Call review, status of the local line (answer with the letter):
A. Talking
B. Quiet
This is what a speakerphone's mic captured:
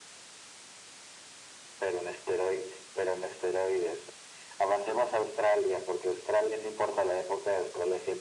B